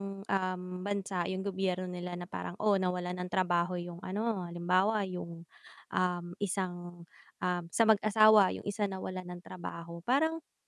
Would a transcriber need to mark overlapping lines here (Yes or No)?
No